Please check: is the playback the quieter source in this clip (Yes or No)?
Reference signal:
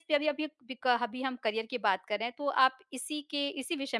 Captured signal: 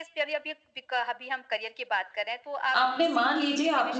Yes